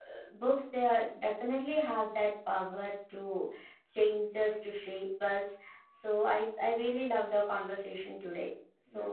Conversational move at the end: taking over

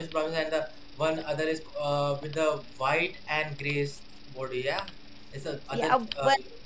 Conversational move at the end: taking over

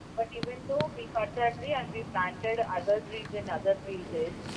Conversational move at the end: listening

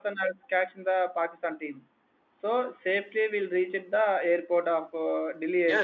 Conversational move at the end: taking over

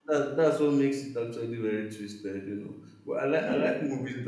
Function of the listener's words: listening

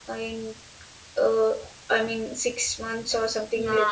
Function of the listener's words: taking over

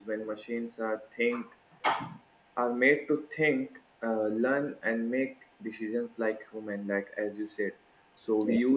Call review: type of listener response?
listening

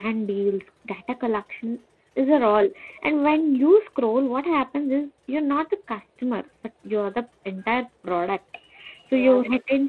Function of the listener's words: listening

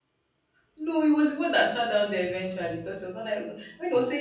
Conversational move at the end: listening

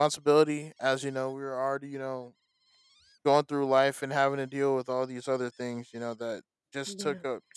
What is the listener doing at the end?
listening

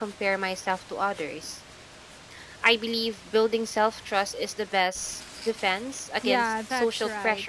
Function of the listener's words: taking over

